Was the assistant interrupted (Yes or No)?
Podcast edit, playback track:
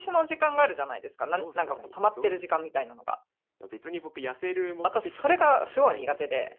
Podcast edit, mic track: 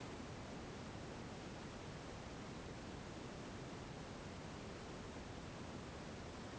No